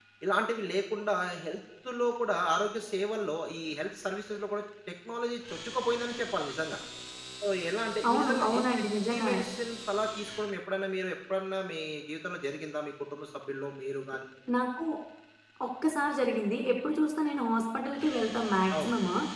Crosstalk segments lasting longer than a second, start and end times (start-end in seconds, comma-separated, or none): none